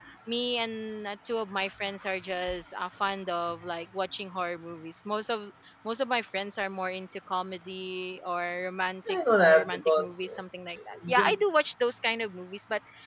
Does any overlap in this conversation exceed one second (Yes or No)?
Yes